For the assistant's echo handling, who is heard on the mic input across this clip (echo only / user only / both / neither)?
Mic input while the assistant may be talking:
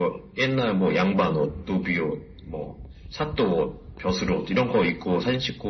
echo only